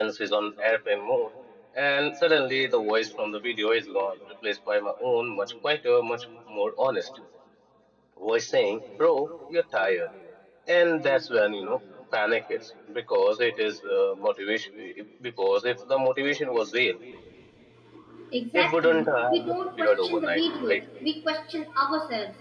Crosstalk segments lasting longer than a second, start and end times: 18.5-20.8

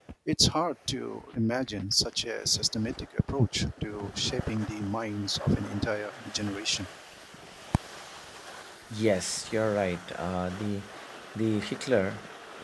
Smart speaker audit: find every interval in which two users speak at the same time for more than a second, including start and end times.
none

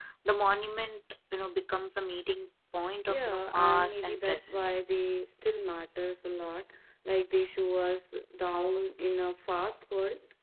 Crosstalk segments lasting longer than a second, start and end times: 3.1-4.7

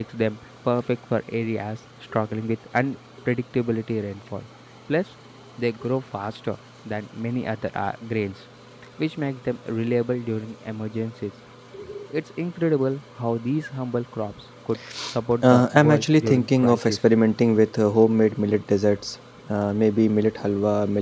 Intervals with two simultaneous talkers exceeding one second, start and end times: 15.4-17.0

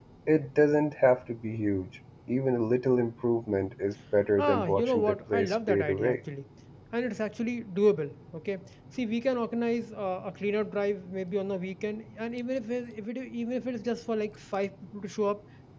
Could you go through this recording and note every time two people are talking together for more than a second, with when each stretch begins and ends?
4.4-6.2

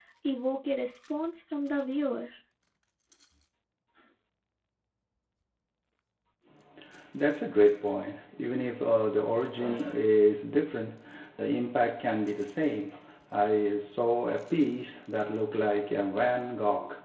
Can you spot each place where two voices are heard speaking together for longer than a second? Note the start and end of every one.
none

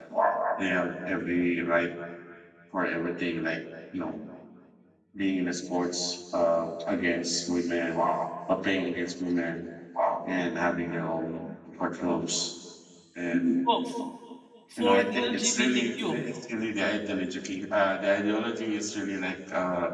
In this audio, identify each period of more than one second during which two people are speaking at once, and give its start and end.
14.8-16.2

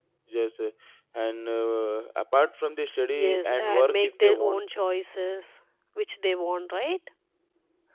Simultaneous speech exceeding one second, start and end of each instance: 3.1-4.6

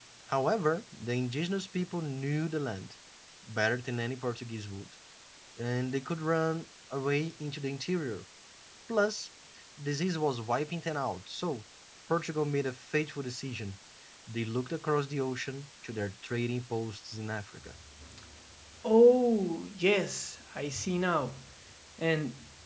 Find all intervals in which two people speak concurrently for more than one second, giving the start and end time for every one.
none

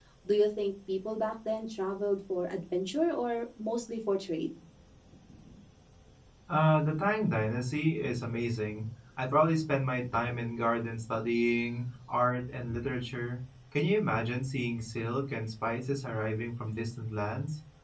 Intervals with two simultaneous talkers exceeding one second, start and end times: none

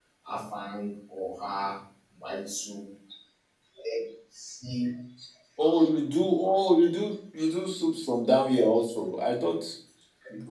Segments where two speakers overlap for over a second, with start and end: none

